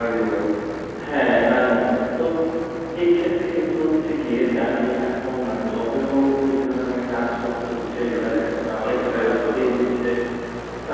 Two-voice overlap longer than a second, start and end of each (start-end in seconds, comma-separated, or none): 8.8-10.0